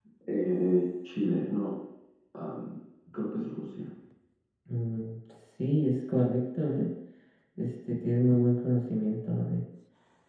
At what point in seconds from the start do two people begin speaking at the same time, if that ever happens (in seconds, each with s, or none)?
none